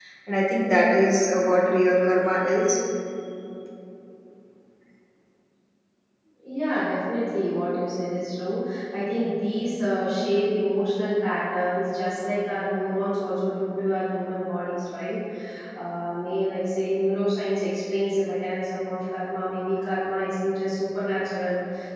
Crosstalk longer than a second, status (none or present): none